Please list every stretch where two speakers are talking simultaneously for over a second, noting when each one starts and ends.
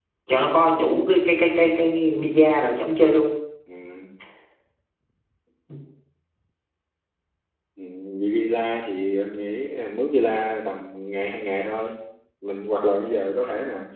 none

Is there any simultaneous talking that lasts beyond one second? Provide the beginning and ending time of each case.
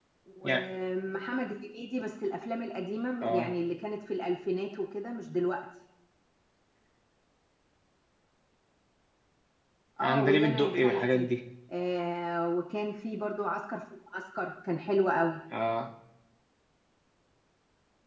10.0-11.3

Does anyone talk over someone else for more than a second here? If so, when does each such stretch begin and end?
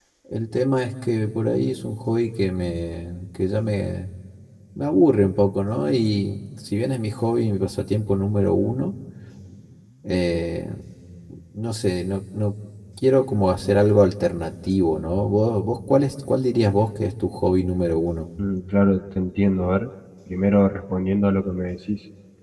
none

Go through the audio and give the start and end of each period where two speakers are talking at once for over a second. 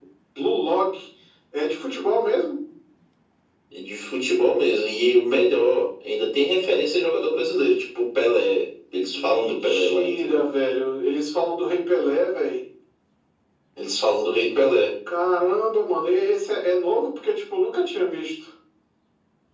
9.1-10.4

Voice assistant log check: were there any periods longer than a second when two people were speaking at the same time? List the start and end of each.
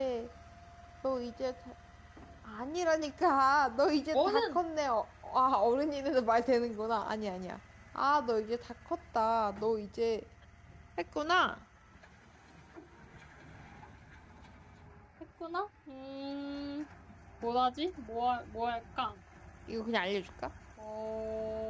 none

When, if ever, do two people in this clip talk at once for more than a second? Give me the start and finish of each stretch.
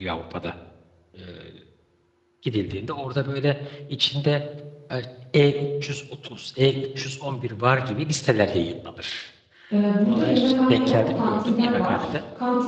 10.0-12.1

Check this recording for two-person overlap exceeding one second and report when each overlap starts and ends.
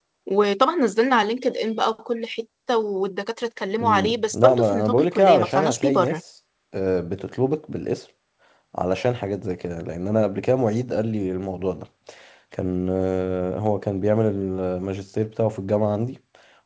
3.8-6.2

